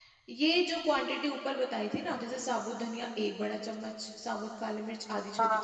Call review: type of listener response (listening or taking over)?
listening